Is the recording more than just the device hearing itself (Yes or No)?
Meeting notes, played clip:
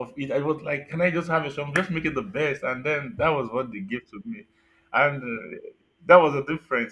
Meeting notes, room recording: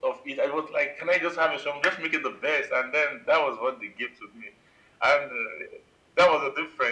No